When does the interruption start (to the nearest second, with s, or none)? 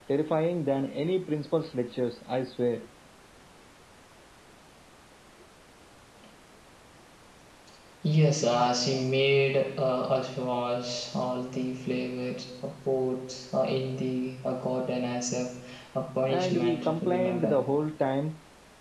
16 s